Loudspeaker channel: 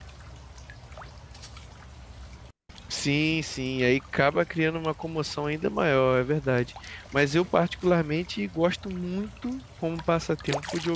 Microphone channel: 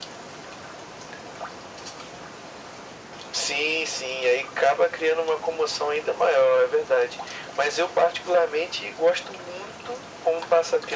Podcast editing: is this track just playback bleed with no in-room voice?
Yes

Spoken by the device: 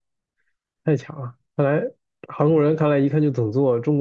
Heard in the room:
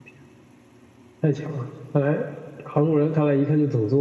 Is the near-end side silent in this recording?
Yes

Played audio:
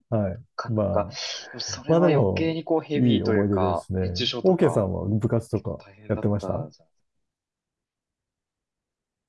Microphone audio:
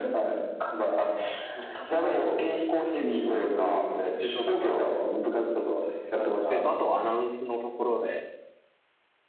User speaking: Yes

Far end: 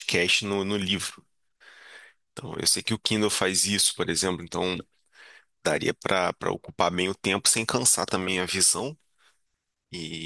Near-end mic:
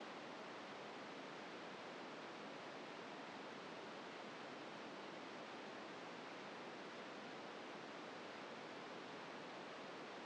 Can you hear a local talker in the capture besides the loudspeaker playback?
No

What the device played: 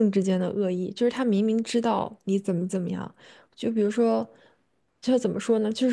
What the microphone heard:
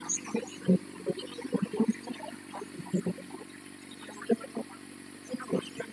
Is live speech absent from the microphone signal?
Yes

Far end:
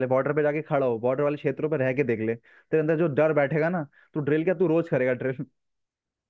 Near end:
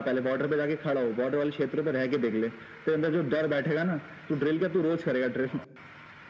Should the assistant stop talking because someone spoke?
No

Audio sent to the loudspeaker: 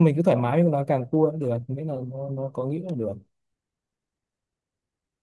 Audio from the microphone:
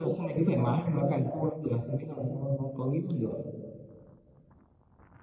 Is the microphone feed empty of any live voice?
Yes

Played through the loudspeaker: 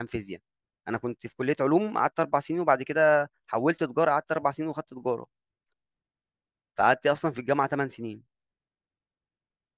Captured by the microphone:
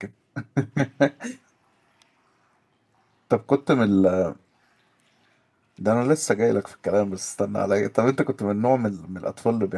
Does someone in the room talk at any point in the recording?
Yes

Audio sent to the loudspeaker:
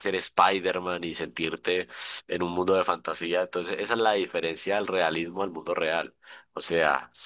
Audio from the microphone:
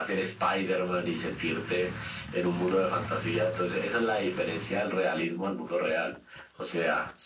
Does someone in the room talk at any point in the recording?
No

